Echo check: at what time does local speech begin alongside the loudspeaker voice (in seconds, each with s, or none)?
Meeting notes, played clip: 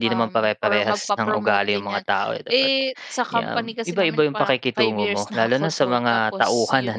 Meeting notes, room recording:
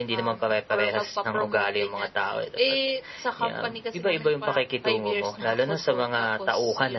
none